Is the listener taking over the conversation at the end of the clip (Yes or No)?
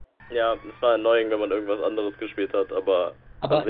Yes